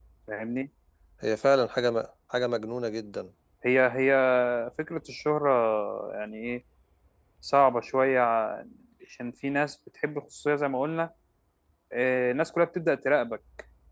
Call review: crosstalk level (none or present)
none